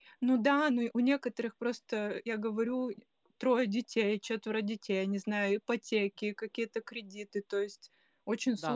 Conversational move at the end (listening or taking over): taking over